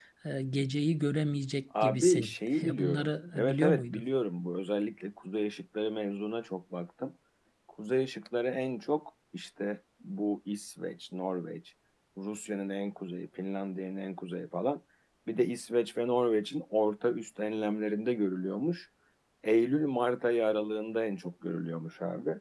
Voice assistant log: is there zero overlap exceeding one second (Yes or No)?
No